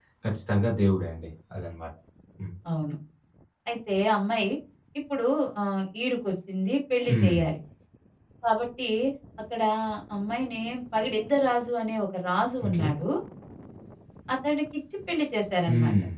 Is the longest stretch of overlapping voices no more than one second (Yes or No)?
Yes